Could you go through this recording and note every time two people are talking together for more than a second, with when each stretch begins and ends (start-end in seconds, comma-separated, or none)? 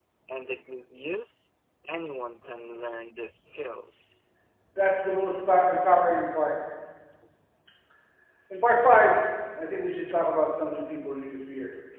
none